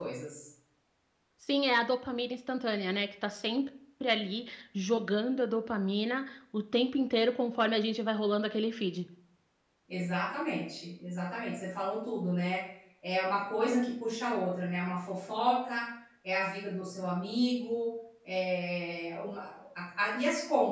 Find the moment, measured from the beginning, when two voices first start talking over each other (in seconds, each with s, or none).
none